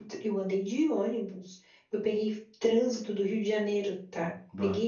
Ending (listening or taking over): listening